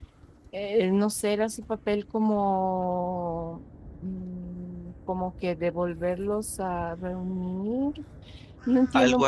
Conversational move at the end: taking over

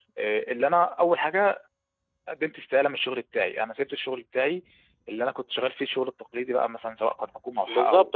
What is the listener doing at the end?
taking over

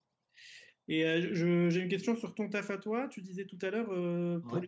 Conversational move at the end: listening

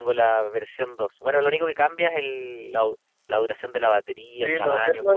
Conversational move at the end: taking over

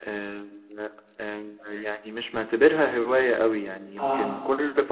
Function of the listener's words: listening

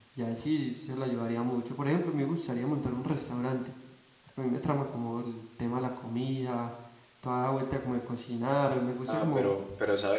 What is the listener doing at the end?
taking over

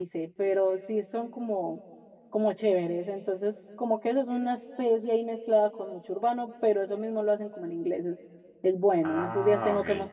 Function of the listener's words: listening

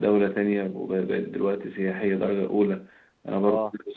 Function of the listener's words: listening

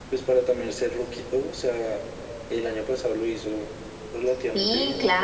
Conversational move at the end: taking over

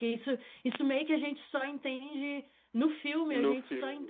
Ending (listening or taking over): listening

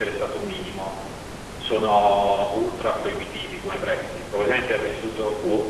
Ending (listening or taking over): listening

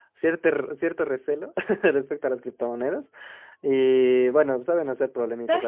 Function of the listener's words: taking over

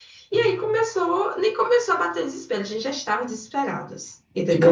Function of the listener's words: taking over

